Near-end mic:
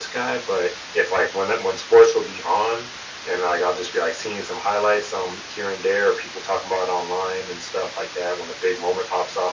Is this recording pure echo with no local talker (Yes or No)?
Yes